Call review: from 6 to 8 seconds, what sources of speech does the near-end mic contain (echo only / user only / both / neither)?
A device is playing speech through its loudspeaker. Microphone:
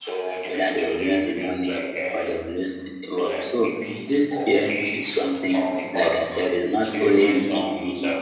both